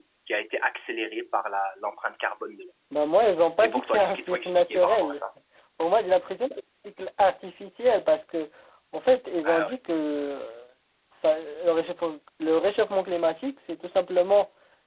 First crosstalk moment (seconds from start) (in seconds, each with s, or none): 3.6 s